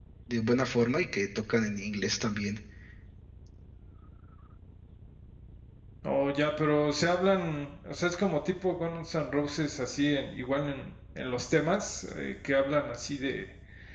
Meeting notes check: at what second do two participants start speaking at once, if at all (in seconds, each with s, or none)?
none